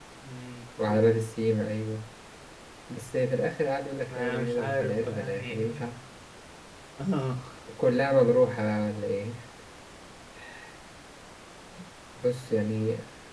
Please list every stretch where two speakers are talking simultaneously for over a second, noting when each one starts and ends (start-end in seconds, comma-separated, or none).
4.1-5.7